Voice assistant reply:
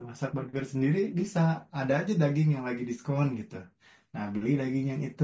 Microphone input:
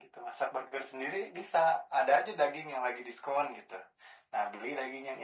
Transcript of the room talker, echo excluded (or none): none